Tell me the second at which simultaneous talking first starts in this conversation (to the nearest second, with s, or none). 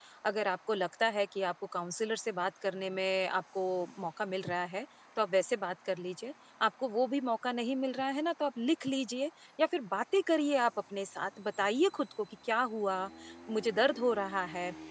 none